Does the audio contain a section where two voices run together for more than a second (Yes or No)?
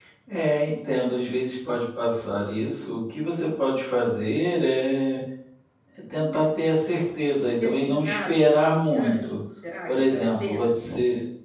Yes